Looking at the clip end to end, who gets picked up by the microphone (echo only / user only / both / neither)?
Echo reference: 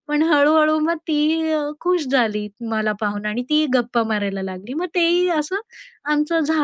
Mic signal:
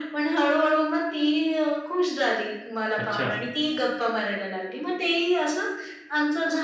both